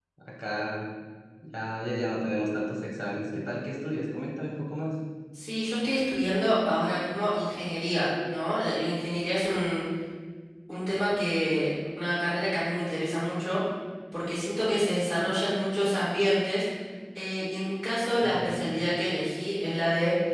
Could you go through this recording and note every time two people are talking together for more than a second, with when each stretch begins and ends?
none

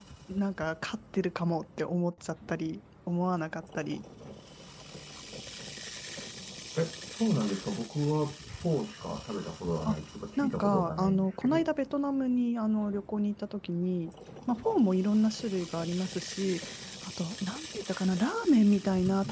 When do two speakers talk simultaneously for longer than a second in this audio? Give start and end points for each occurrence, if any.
10.4-11.7

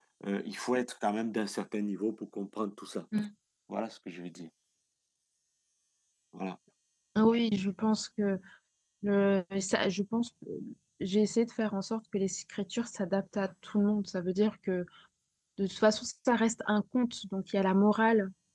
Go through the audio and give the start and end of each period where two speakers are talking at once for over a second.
none

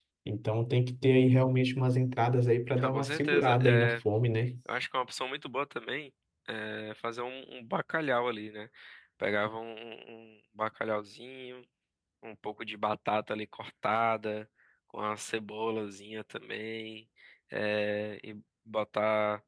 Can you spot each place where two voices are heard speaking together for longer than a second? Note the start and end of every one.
2.8-4.0

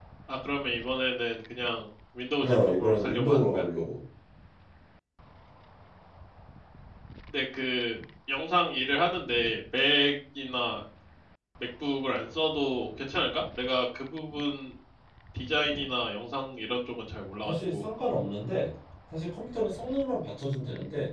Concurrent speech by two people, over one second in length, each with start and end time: 2.4-3.6

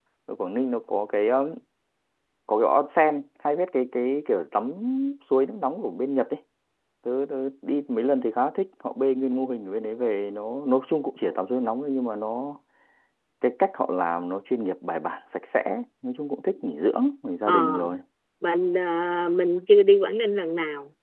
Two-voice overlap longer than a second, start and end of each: none

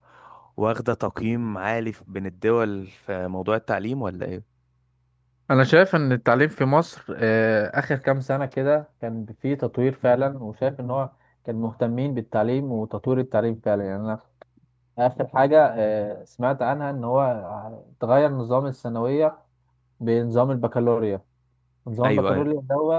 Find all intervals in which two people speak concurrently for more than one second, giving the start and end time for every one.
none

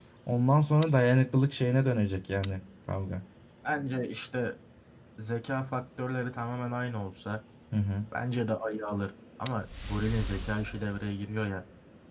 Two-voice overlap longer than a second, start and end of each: none

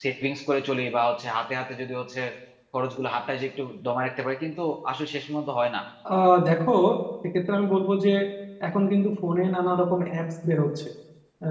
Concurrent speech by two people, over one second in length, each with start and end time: none

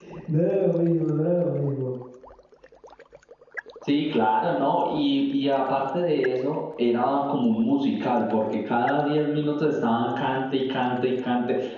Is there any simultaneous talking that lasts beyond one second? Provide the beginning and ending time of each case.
none

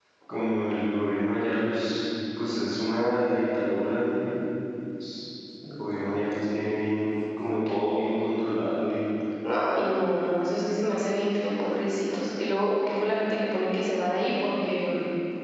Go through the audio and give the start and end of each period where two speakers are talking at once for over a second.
none

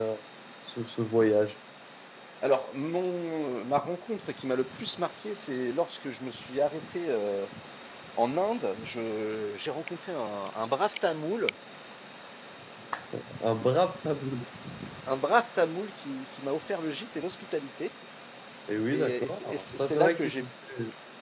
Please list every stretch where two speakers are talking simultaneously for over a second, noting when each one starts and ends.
18.9-20.4

